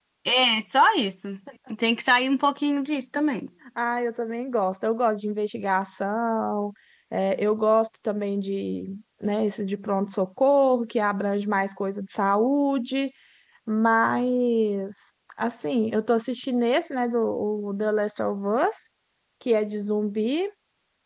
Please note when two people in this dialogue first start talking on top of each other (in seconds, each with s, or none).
none